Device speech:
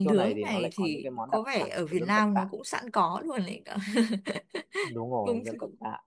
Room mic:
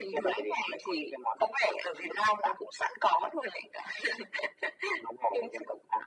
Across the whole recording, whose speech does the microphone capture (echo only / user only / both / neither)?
echo only